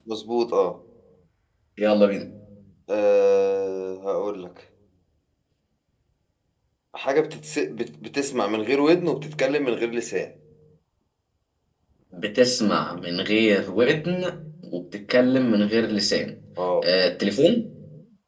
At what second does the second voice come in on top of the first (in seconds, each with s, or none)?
none